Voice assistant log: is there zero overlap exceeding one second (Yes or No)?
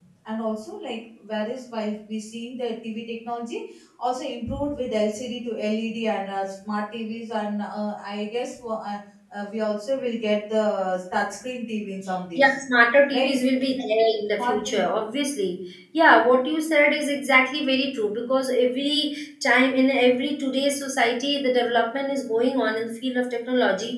Yes